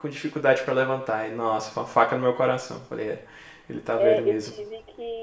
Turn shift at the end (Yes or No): Yes